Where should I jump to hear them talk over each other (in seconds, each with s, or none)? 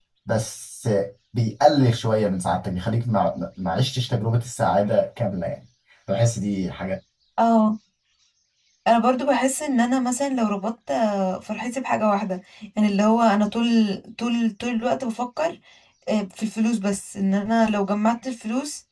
none